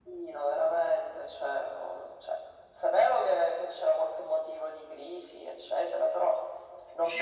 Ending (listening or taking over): taking over